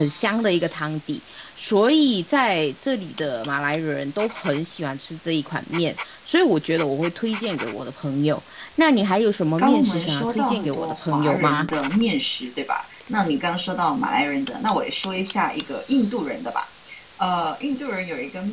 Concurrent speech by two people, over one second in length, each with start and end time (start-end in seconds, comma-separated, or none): 9.6-11.7